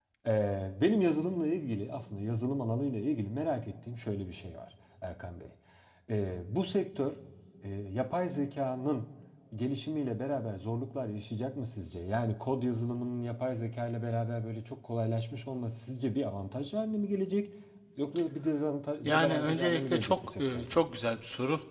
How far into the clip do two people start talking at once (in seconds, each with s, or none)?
19.0 s